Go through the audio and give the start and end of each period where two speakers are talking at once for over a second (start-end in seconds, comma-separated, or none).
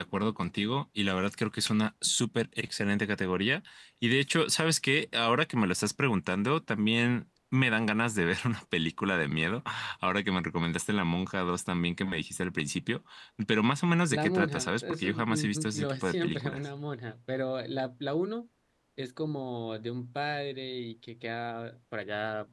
14.1-16.6